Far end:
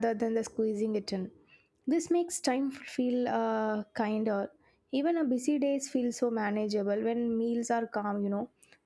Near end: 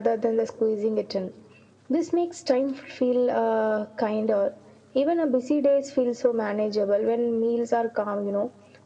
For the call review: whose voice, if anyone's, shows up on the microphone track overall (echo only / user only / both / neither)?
echo only